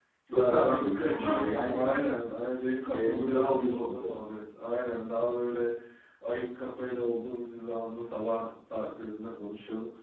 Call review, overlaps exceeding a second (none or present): present